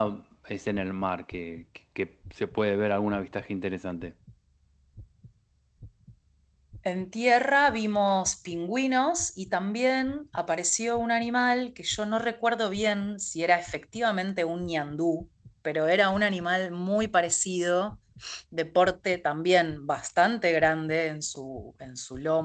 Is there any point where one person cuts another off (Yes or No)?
No